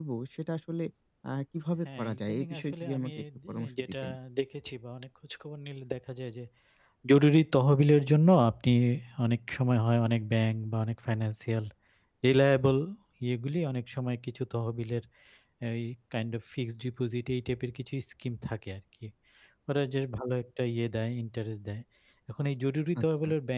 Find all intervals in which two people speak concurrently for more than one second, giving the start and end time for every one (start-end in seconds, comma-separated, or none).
1.8-3.9